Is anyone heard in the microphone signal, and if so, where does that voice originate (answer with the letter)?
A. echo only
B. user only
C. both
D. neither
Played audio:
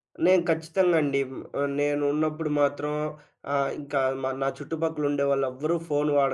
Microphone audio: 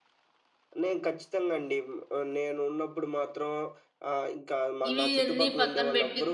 C